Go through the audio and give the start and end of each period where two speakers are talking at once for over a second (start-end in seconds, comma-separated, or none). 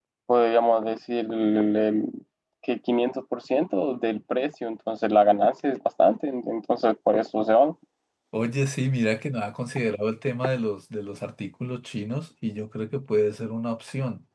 none